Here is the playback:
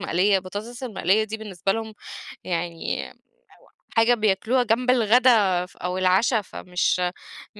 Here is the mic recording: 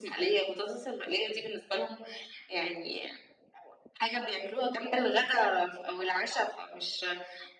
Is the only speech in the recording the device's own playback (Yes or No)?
Yes